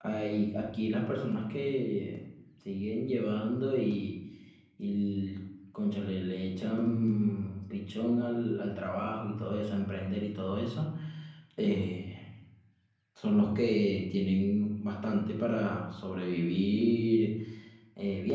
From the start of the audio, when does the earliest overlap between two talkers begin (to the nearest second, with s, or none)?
none